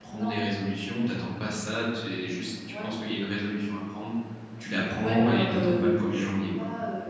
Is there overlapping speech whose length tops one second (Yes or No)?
Yes